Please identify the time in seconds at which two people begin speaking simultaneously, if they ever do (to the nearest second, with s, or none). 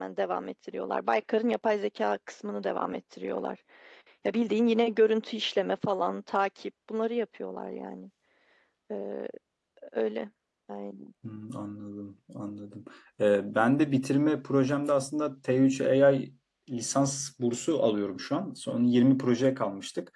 none